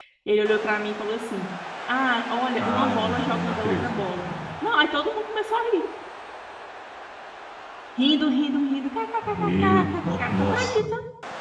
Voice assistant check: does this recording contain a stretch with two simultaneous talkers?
Yes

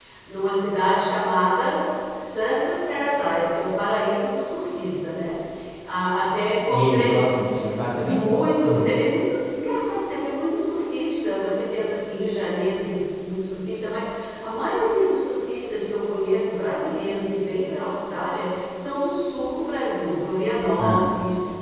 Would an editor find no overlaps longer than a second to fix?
Yes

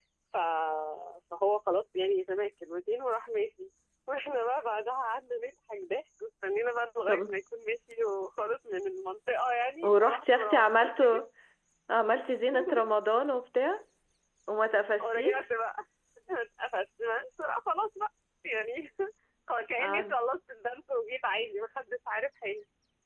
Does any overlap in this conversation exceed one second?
Yes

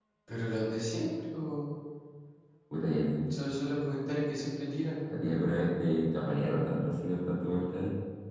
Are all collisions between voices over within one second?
Yes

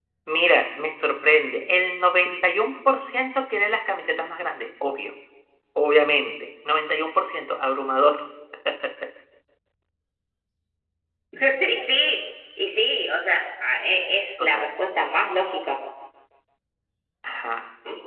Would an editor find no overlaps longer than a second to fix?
Yes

